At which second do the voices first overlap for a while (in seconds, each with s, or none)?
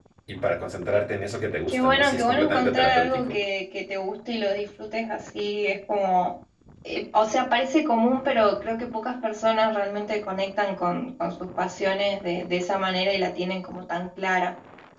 1.7 s